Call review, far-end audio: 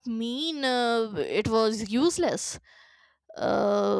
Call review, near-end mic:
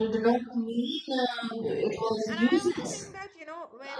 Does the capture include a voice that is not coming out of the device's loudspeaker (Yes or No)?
Yes